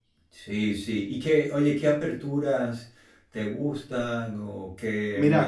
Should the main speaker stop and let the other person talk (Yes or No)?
Yes